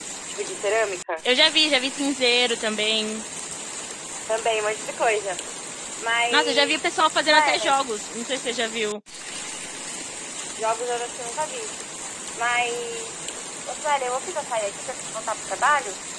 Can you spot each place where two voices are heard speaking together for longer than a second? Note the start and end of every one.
none

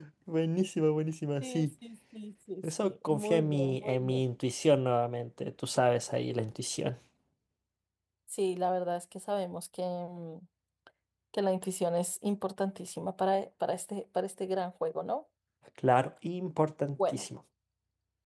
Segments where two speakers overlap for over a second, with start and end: 2.6-4.2

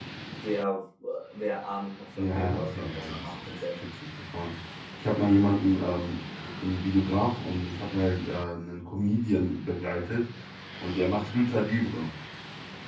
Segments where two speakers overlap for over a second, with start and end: 2.2-3.9

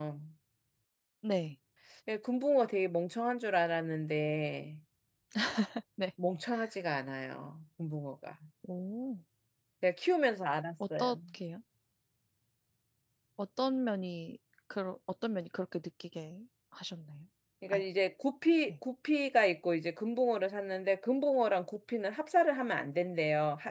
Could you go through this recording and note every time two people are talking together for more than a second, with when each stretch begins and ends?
none

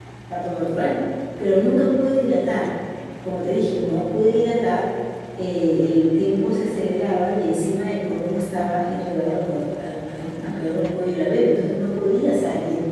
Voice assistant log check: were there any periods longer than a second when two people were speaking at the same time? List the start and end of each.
none

